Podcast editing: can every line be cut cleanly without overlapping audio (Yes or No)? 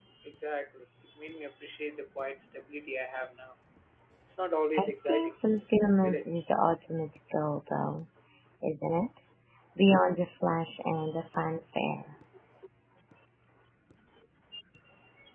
No